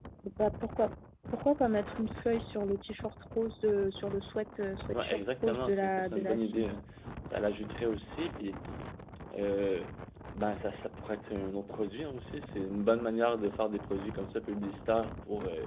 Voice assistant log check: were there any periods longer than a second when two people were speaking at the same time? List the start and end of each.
4.9-6.7

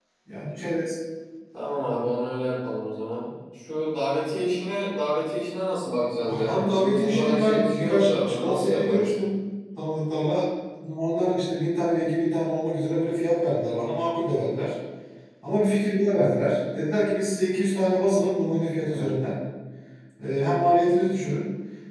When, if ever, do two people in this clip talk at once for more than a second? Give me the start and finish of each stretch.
6.3-9.1

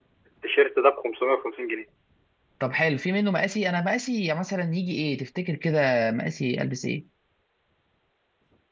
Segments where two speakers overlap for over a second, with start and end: none

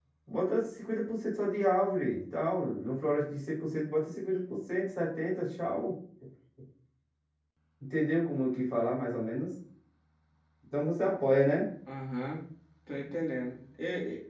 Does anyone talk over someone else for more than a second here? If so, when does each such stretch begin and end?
none

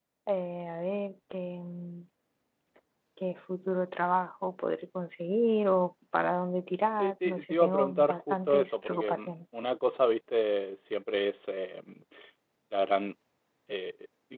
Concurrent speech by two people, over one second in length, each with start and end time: 7.0-9.3

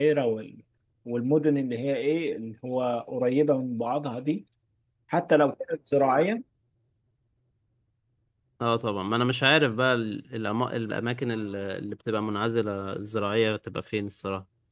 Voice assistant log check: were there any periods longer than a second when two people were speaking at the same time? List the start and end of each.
none

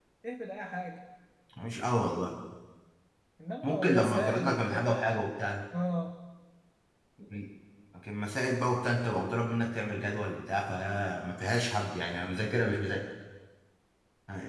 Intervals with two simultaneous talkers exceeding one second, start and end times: 3.6-5.0

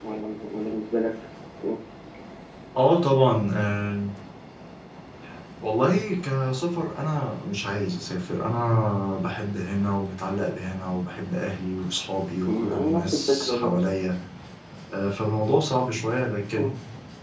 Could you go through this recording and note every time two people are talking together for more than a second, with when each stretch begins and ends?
12.4-13.7

